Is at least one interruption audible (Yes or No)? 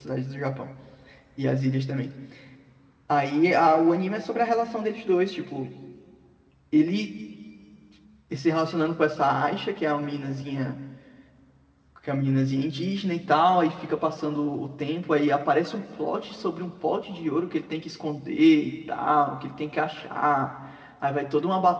No